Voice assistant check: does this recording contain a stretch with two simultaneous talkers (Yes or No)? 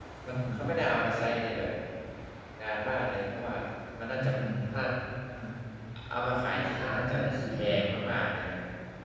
Yes